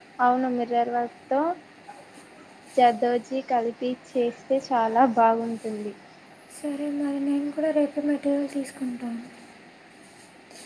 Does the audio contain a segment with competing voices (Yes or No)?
No